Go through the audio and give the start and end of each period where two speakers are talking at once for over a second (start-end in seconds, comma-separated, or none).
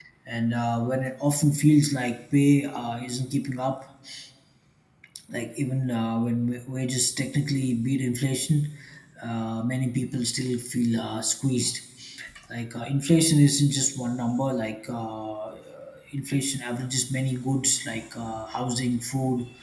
none